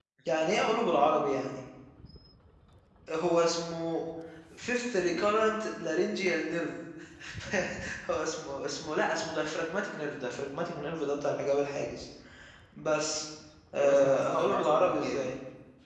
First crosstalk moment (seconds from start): 13.8 s

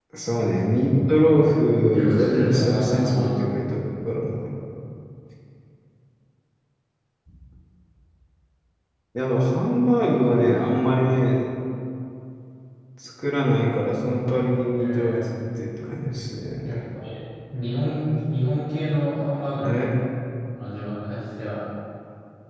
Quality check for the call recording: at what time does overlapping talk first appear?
1.9 s

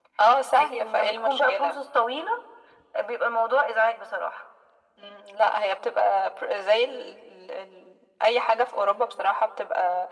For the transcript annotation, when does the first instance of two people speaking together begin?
0.6 s

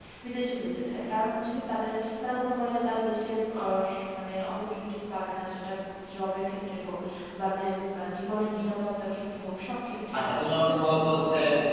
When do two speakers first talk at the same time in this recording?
10.1 s

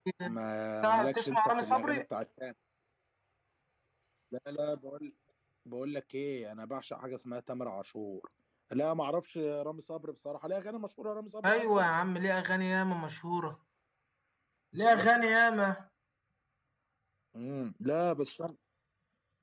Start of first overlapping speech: 0.8 s

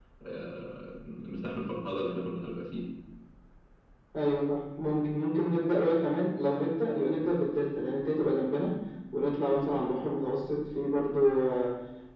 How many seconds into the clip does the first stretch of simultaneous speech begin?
none

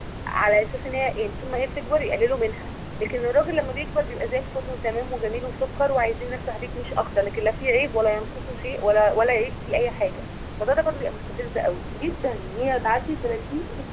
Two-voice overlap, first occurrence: none

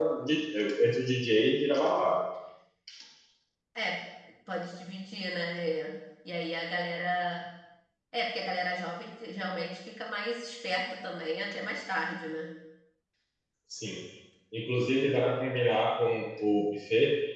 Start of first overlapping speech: none

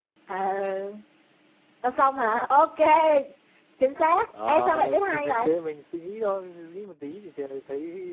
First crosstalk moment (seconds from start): 4.3 s

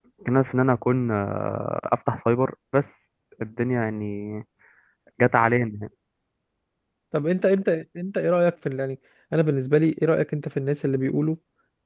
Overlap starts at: none

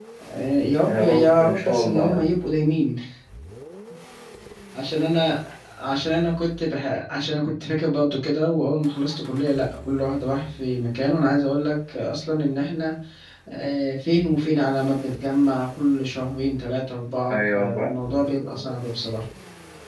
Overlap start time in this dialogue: 0.8 s

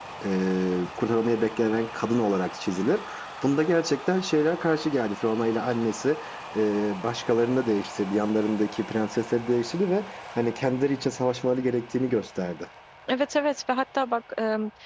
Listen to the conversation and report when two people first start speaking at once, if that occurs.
none

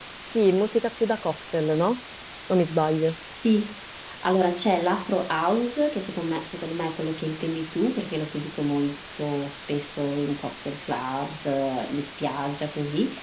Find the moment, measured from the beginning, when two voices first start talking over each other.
none

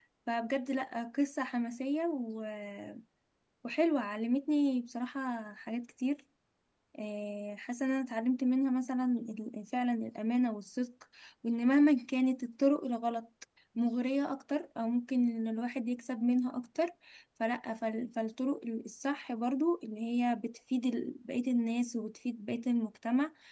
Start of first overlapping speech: none

